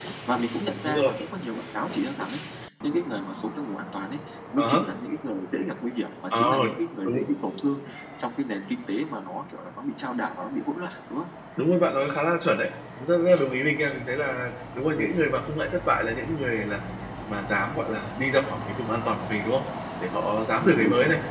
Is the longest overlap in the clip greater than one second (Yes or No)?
No